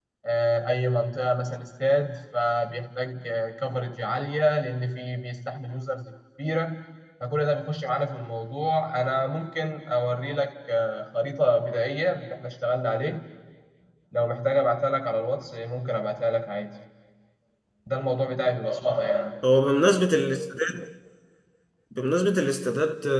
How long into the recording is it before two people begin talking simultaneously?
none

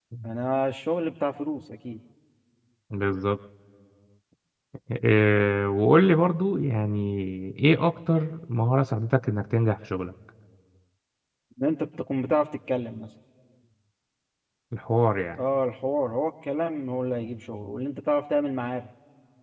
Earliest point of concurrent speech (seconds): none

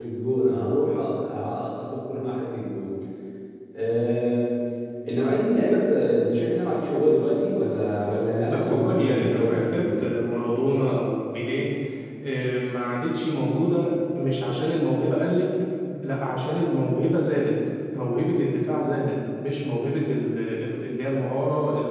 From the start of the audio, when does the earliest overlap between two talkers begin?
8.5 s

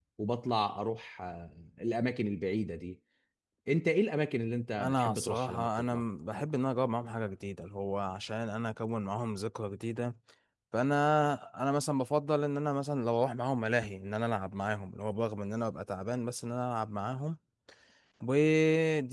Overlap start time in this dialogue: 4.8 s

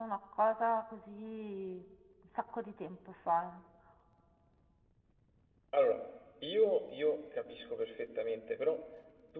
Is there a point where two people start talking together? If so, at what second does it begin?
none

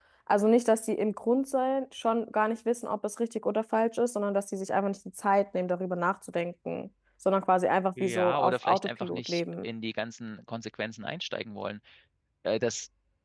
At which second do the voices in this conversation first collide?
8.0 s

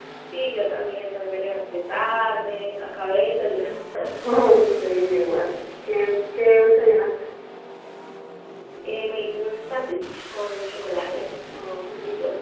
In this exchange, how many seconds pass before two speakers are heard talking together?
none

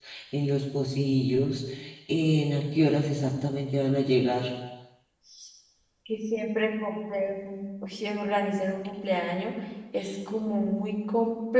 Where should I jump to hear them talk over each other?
none

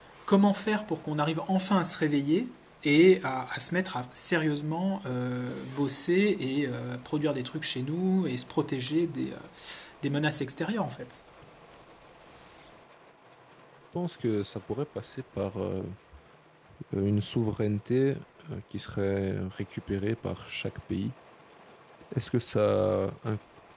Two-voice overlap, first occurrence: none

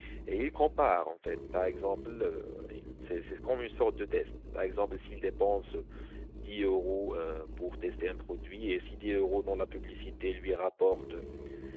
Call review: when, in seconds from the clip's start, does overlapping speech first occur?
none

